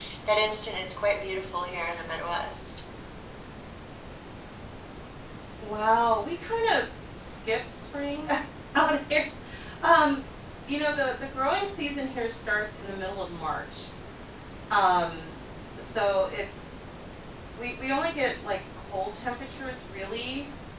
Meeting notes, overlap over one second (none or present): none